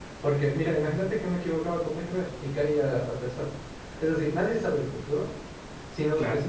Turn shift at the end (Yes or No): No